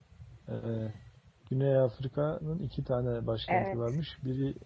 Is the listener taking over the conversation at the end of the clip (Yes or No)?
No